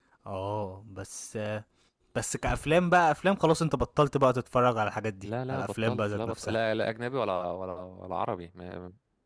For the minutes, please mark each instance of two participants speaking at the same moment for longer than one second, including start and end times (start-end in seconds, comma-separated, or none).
5.2-6.6